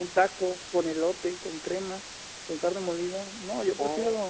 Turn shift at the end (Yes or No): Yes